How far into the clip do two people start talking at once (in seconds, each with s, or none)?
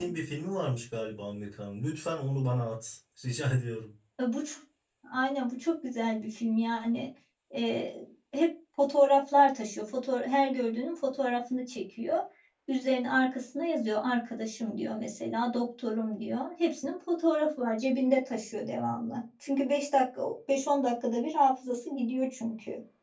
none